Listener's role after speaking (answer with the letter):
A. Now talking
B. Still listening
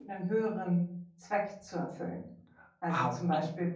B